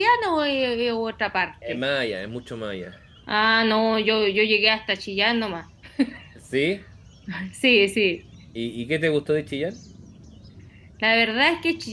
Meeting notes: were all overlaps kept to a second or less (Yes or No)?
Yes